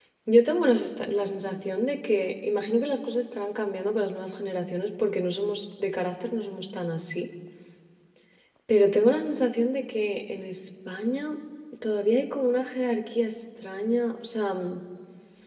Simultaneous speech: No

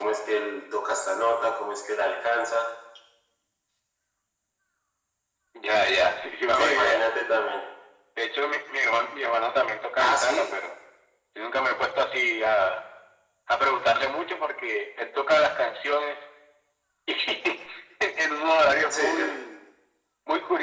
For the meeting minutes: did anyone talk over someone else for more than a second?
No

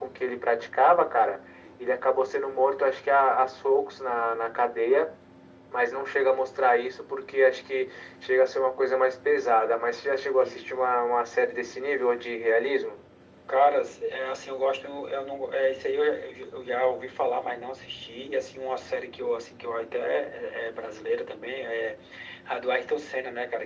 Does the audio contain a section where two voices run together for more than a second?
No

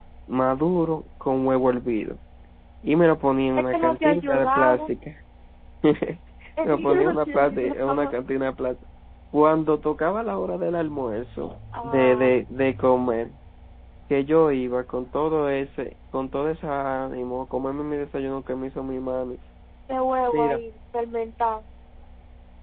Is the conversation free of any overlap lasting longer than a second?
No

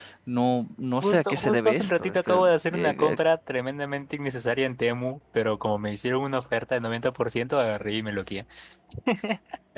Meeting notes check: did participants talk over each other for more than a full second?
Yes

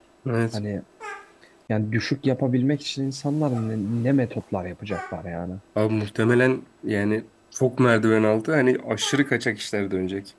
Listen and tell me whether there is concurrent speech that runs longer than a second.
No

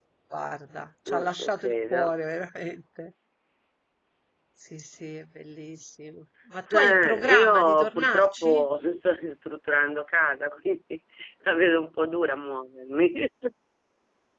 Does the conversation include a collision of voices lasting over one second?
Yes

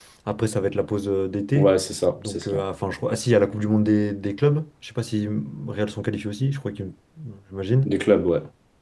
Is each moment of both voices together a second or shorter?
Yes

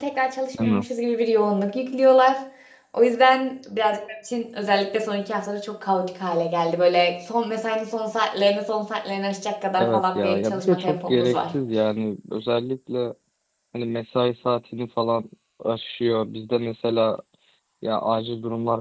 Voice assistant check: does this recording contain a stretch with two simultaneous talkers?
Yes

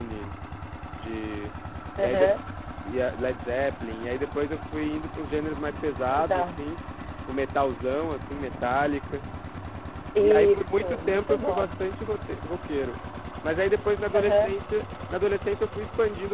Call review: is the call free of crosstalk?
No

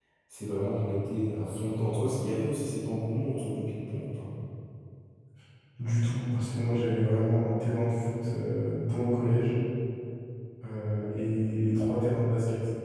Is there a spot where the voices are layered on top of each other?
No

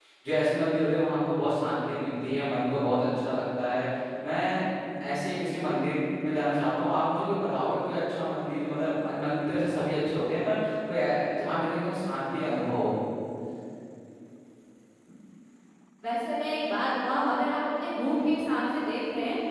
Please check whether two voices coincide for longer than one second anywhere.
No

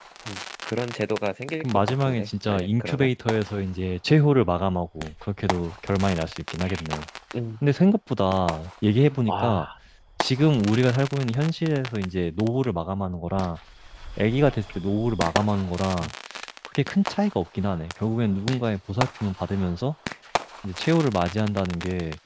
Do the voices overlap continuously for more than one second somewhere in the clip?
Yes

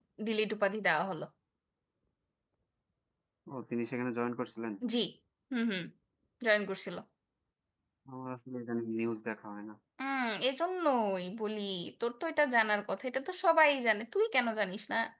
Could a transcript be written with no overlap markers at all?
Yes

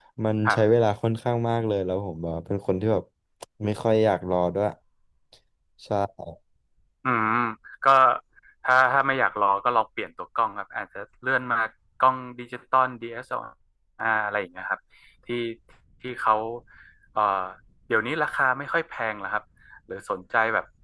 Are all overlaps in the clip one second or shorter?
Yes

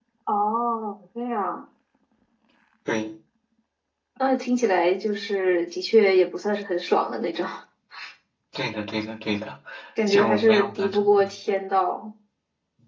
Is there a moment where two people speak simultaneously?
Yes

